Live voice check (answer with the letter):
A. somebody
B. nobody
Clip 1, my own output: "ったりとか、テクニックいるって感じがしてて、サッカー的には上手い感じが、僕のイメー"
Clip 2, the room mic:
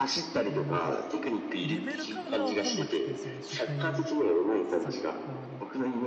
A